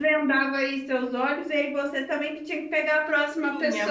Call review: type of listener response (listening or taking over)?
taking over